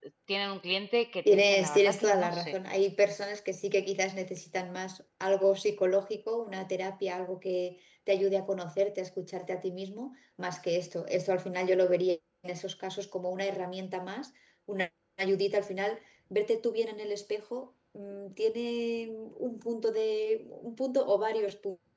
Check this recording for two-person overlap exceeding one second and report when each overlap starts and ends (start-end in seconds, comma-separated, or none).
1.2-2.5